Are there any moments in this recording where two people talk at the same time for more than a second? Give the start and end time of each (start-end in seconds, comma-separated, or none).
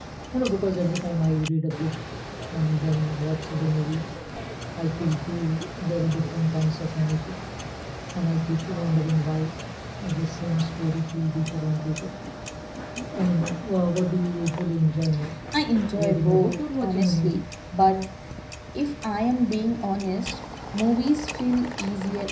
16.0-17.4